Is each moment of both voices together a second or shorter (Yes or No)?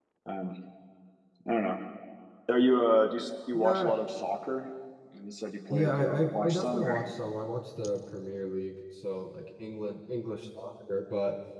No